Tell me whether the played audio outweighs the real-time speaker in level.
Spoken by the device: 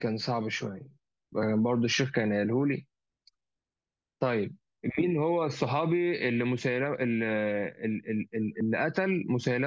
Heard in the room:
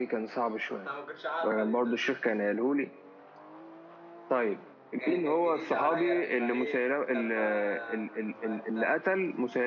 Yes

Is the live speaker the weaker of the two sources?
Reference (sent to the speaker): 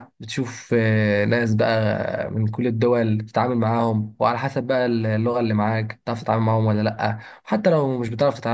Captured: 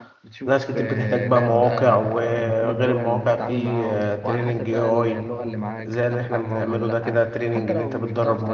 No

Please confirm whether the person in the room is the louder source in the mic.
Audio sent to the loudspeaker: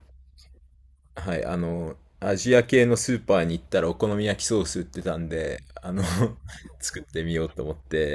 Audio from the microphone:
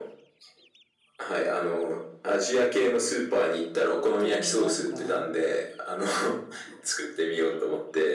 No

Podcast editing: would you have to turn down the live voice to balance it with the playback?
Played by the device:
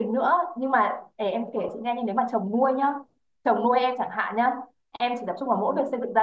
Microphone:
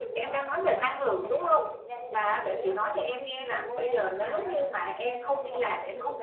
Yes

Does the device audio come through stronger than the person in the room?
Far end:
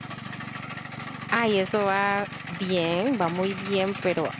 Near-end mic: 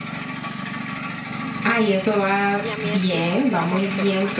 Yes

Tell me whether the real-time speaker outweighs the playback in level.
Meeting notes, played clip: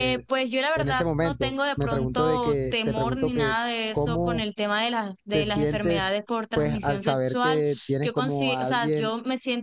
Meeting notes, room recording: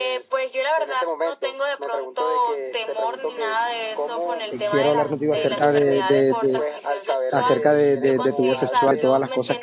Yes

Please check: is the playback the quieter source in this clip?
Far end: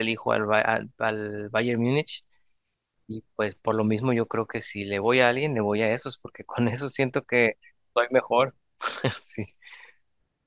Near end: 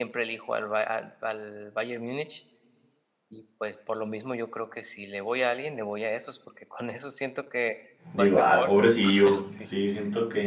Yes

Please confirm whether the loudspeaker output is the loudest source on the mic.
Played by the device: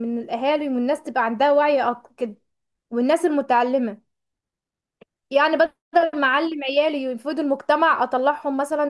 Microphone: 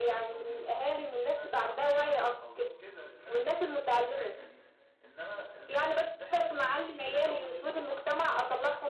Yes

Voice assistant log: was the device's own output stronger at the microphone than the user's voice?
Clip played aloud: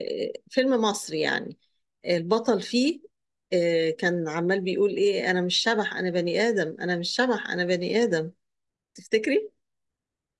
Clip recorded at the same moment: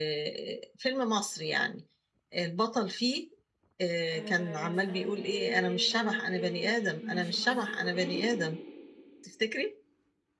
Yes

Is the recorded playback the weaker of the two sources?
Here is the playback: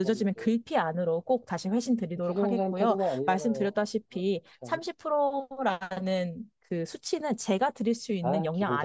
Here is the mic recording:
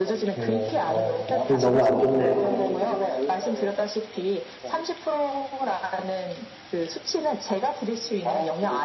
Yes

